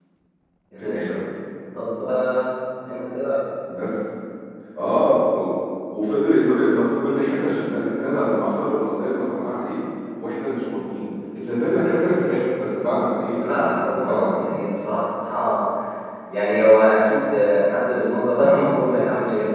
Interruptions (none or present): present